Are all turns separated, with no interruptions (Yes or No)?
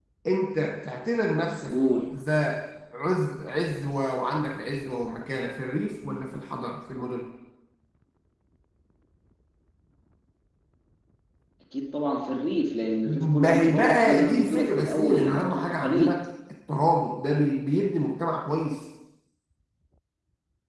No